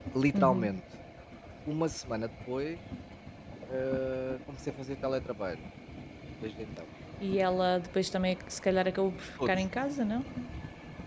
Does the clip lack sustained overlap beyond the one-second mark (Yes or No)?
Yes